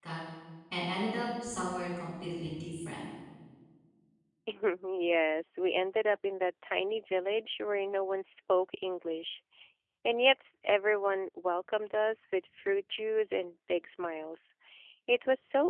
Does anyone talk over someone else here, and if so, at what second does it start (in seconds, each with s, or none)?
none